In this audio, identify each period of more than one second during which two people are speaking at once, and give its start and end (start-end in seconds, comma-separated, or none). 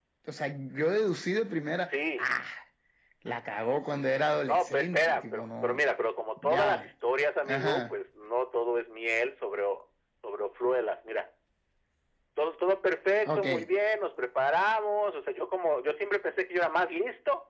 4.5-5.8